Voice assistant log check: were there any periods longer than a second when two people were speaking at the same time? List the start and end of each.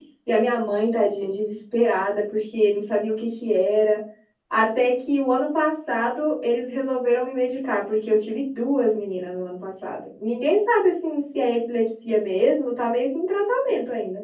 none

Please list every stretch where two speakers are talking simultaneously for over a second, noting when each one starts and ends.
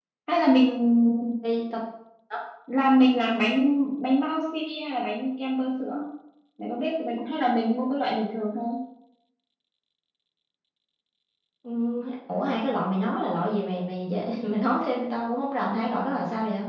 none

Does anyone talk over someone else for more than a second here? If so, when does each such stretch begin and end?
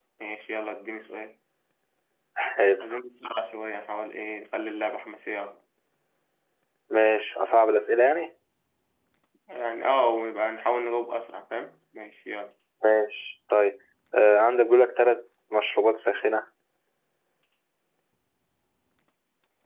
none

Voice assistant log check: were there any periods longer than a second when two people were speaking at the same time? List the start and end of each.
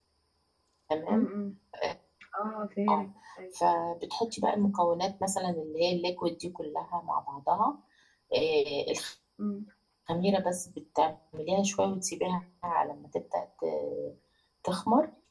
none

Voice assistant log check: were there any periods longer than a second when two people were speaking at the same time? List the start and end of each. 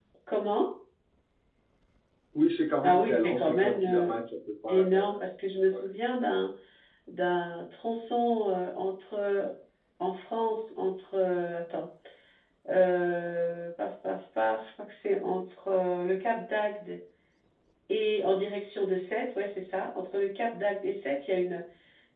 2.8-4.1

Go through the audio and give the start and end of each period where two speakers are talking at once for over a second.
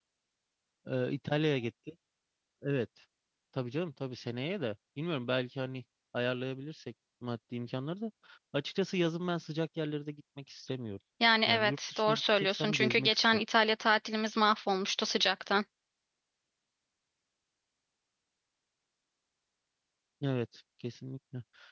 11.5-13.4

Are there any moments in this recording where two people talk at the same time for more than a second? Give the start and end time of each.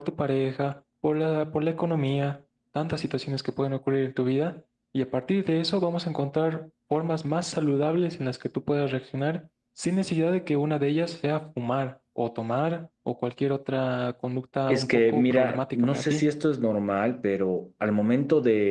14.7-16.4

